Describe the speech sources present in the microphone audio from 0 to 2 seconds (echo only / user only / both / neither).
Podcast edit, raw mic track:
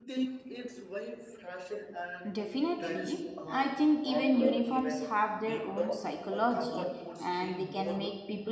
echo only